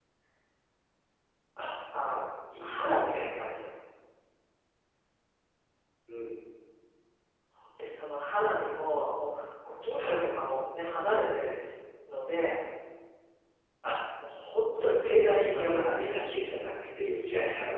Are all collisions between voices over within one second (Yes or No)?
No